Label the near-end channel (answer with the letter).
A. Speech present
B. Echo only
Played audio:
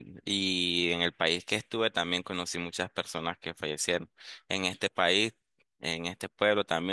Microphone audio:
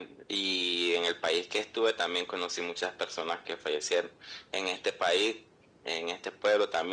B